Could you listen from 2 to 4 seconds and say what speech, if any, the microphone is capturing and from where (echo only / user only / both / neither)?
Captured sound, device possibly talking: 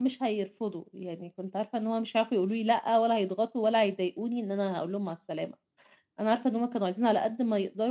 user only